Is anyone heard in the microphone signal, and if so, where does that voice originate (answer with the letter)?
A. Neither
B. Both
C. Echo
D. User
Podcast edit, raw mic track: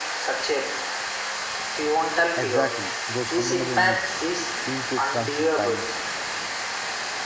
B